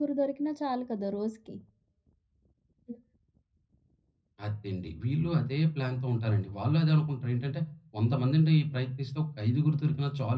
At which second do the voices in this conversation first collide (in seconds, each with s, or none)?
none